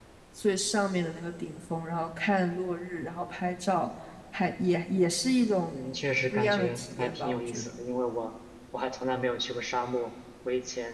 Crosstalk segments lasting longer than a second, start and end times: 6.3-7.7

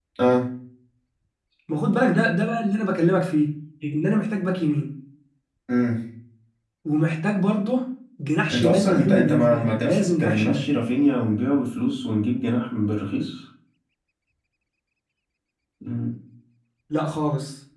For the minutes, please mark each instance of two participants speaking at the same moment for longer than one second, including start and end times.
8.5-10.7

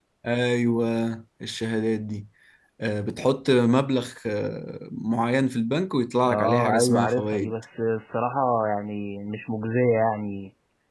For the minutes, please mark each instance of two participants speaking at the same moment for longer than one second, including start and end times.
6.3-7.5

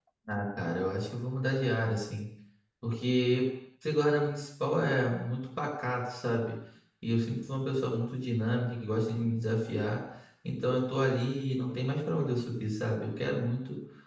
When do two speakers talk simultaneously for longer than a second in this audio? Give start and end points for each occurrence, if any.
none

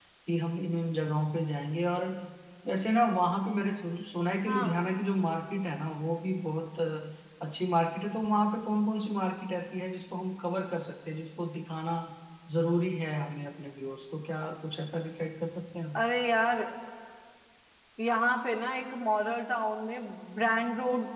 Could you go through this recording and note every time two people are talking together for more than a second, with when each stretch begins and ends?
none

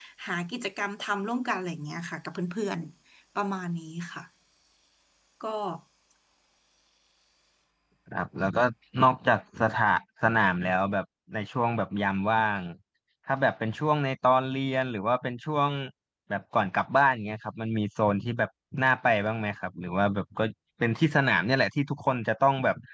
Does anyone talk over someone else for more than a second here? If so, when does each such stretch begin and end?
none

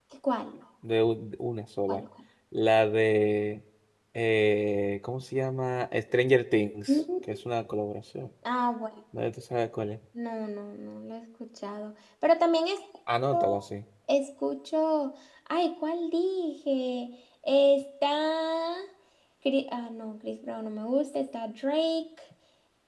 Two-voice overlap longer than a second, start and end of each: none

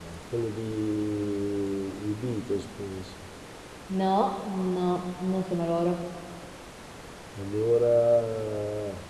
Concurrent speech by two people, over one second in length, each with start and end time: none

